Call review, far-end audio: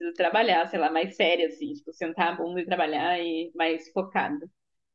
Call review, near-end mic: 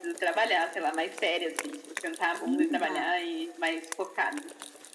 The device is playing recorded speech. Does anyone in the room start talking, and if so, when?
2.5 s

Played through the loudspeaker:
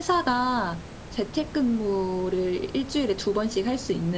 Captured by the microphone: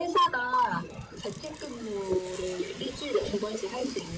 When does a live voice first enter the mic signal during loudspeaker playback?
none

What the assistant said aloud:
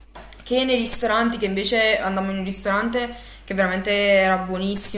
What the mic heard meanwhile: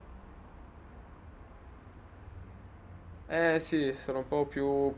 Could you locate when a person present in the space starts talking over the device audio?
3.3 s

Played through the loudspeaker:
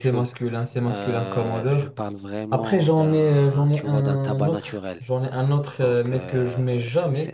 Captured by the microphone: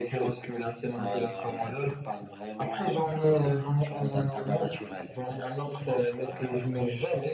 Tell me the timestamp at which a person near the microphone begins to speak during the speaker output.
none

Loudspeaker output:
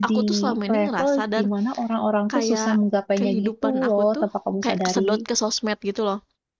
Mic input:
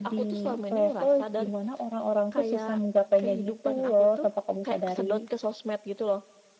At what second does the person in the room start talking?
none

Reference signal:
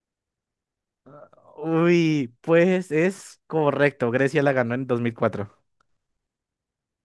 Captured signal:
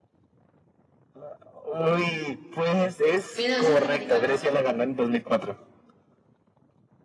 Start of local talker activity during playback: 3.4 s

